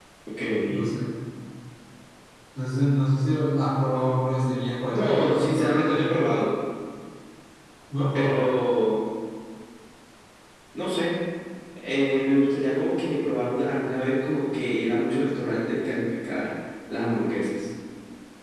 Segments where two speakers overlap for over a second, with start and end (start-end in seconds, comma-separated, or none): 4.9-6.2